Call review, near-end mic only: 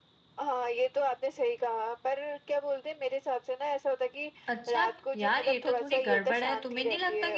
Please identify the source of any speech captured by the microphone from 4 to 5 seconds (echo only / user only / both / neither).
both